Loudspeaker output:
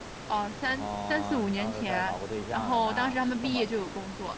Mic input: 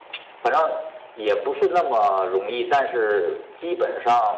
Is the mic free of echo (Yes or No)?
Yes